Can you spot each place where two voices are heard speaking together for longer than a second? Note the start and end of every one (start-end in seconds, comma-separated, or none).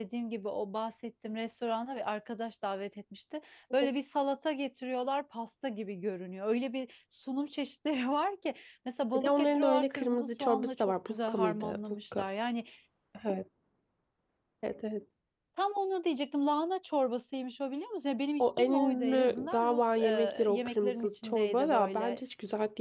9.1-12.2, 18.4-22.2